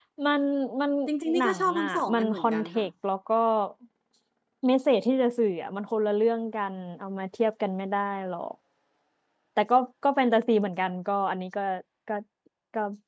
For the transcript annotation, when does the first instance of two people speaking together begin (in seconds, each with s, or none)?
1.4 s